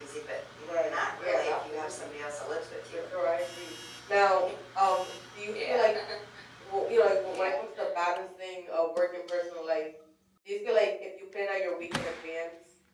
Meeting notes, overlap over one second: present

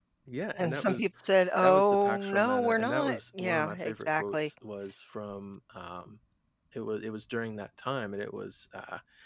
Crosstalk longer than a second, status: present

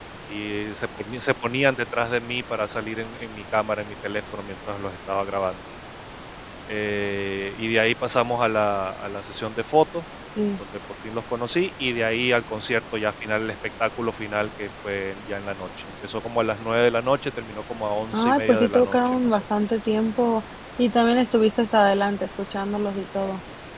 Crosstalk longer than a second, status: present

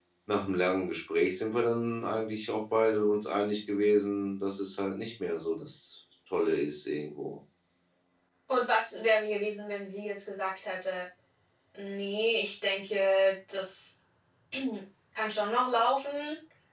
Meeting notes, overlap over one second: none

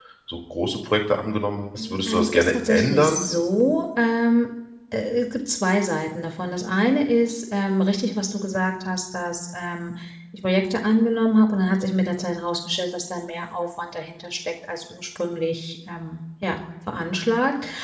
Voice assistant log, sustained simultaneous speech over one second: present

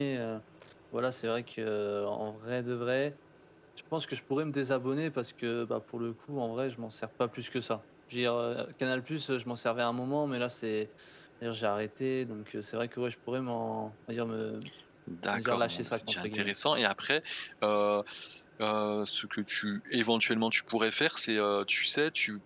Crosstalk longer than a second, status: present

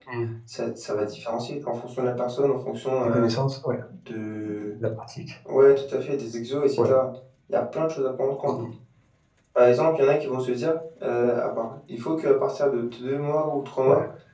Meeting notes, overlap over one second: none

